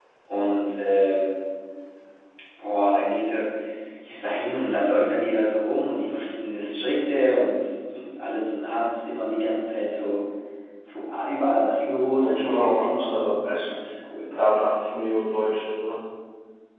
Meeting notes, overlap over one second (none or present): present